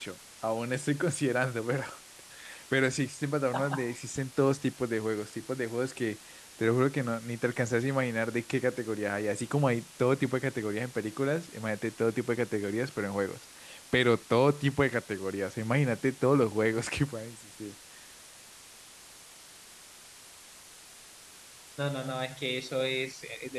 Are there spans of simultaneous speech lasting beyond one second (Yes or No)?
No